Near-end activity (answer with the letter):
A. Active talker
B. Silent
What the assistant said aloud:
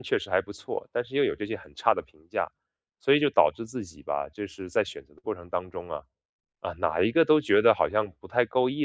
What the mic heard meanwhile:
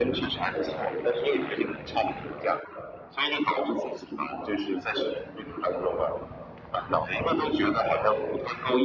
B